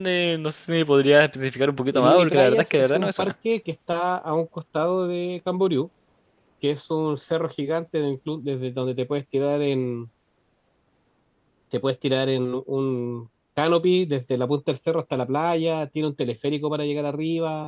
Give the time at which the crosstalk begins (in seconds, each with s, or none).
1.9 s